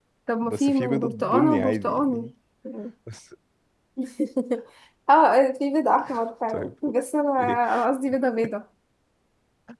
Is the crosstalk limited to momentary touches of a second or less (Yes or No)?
No